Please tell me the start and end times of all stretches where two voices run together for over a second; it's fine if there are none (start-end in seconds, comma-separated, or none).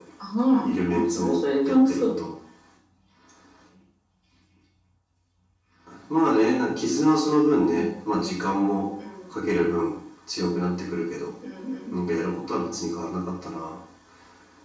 0.6-2.1